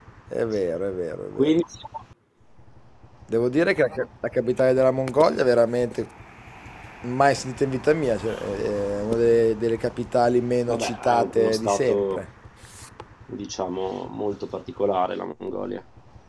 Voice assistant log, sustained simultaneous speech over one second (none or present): present